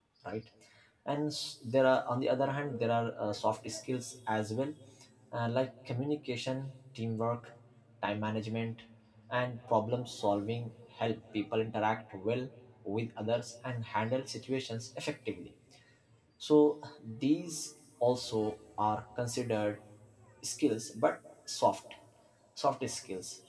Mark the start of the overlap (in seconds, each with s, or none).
none